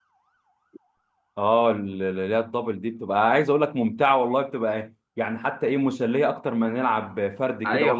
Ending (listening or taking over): taking over